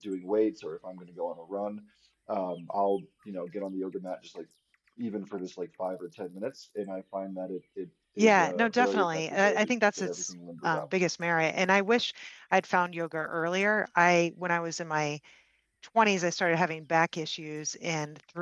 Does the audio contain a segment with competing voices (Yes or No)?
Yes